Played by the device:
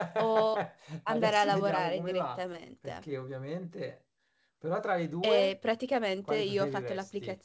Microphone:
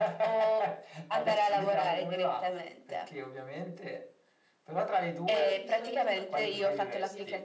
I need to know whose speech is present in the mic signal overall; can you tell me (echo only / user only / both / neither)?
both